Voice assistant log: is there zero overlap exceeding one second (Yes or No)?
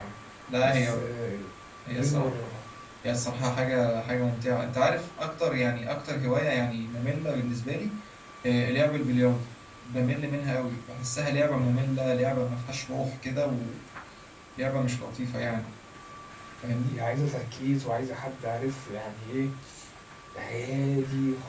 Yes